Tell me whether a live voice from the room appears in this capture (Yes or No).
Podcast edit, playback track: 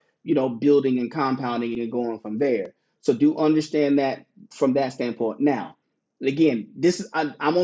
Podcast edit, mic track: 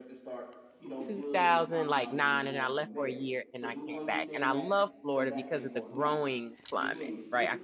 Yes